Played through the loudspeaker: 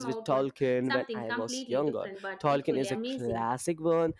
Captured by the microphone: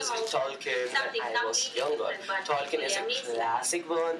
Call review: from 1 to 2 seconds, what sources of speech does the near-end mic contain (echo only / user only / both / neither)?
echo only